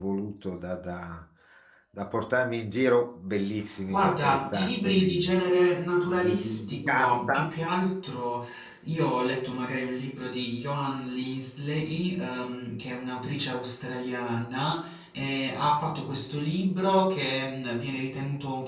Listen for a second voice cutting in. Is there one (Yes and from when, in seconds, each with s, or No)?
Yes, from 3.9 s